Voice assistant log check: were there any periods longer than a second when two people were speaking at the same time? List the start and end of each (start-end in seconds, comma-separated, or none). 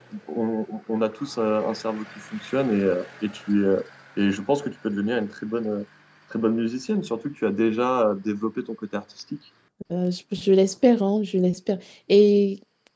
none